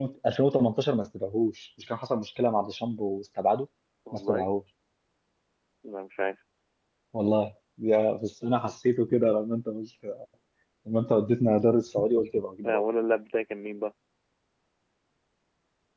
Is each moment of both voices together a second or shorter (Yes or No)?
Yes